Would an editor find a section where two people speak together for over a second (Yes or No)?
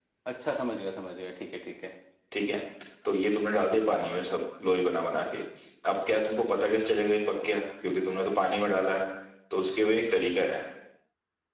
No